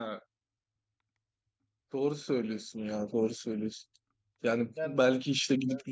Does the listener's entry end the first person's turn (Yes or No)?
No